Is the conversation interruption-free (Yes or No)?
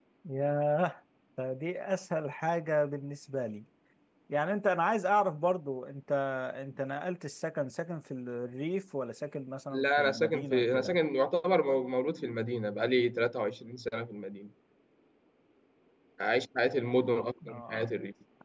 No